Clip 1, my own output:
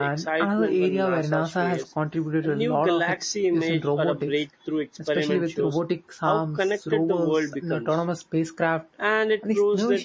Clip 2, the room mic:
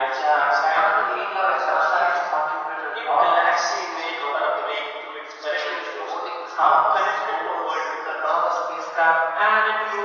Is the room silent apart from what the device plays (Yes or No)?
Yes